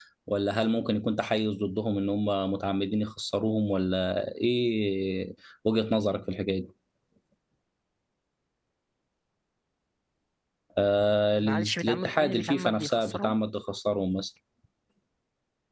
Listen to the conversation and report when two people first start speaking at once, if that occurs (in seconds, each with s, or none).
11.3 s